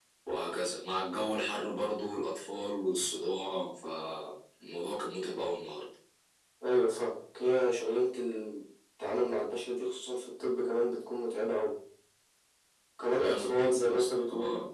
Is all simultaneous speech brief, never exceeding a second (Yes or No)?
No